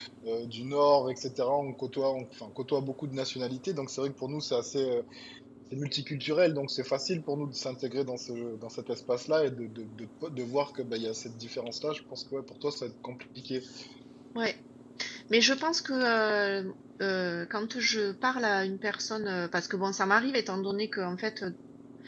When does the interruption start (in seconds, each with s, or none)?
none